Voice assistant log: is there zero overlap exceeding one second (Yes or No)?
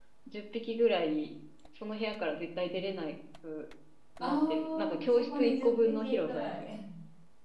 No